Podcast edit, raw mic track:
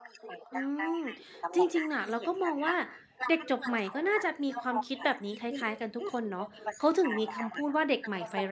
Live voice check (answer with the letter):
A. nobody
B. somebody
B